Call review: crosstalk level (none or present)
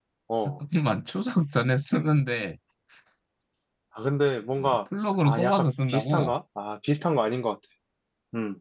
present